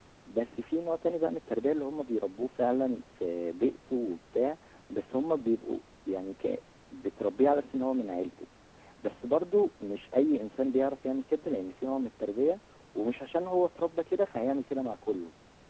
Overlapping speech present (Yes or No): No